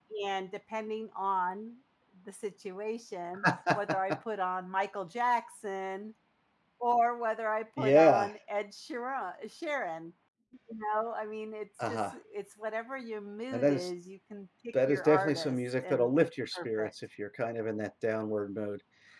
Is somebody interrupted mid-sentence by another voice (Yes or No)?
Yes